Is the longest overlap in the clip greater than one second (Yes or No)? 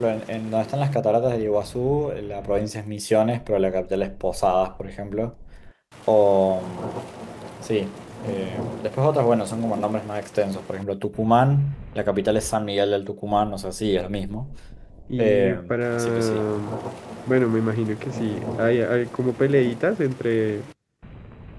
Yes